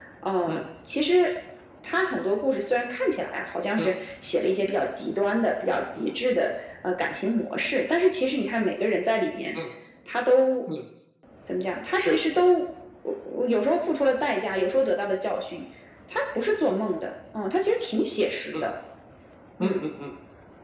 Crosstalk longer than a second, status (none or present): none